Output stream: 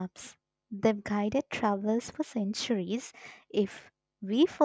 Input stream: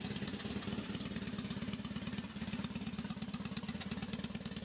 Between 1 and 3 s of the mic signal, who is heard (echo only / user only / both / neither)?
neither